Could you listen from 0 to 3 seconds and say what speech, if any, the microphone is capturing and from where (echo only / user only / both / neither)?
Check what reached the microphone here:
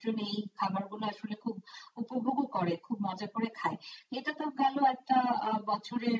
echo only